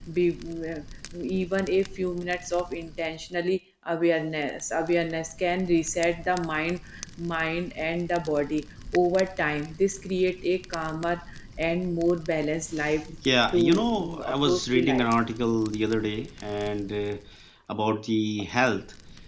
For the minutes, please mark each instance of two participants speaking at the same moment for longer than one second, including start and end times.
13.5-15.1

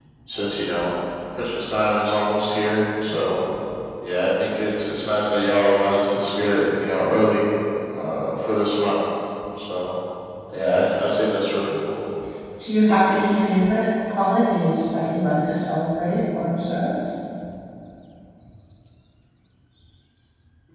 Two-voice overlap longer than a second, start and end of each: none

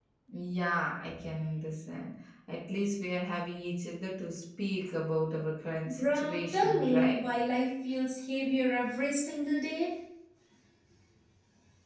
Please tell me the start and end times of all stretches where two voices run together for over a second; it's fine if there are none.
5.9-7.2

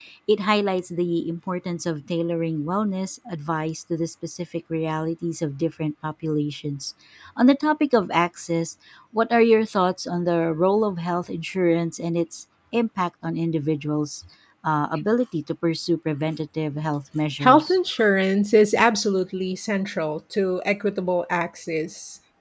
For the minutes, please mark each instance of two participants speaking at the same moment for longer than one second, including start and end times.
none

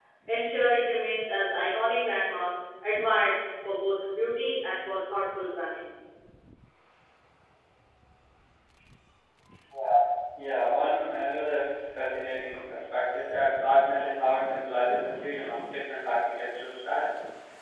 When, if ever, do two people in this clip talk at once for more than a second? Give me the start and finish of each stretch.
none

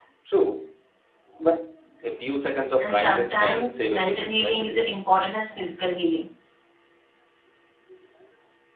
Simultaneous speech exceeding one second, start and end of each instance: 2.8-4.9

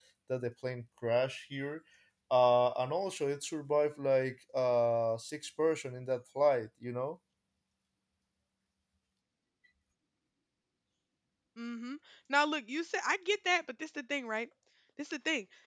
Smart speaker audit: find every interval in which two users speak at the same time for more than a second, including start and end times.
none

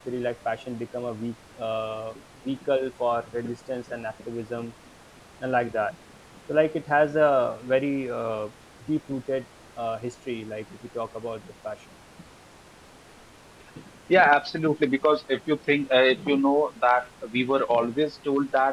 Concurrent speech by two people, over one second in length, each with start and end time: none

